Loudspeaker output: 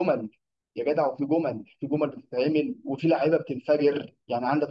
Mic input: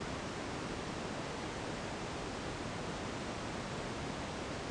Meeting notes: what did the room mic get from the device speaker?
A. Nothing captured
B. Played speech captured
A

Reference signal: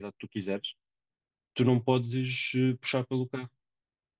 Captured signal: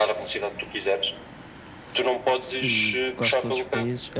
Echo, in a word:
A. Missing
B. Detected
B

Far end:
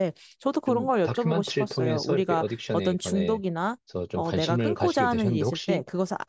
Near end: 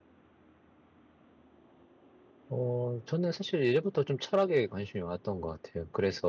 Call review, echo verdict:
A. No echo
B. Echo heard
A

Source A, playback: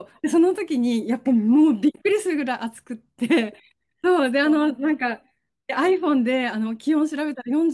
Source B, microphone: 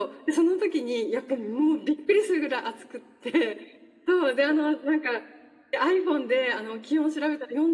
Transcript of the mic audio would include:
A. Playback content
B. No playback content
A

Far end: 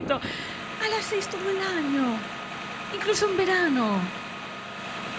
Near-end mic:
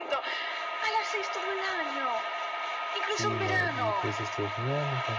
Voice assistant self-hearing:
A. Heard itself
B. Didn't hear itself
A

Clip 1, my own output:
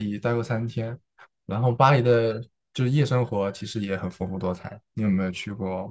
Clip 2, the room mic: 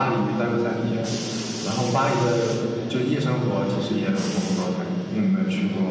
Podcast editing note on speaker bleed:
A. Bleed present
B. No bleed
A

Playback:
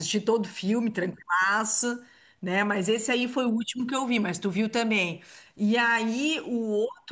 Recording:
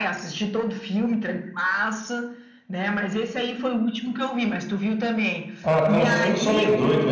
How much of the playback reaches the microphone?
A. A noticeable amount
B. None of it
A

